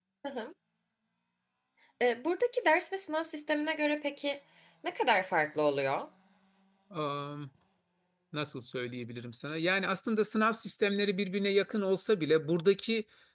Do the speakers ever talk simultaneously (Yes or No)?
No